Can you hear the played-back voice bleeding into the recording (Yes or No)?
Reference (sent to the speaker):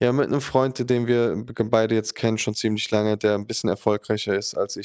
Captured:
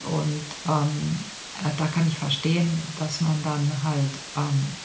No